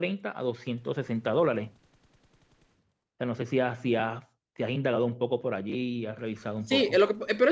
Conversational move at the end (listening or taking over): taking over